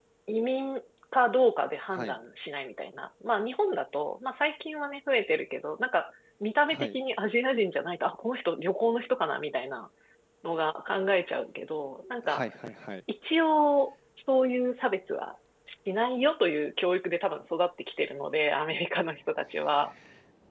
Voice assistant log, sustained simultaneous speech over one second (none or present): none